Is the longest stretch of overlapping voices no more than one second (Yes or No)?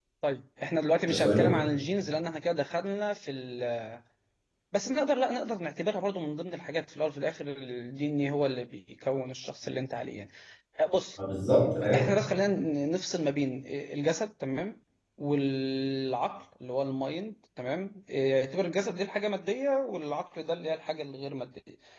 Yes